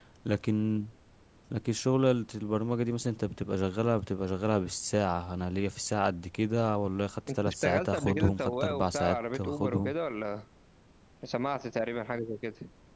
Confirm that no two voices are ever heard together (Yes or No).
No